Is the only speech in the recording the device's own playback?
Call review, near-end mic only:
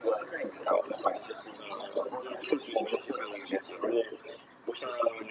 Yes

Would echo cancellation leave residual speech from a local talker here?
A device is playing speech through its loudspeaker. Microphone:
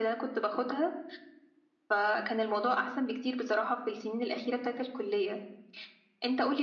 No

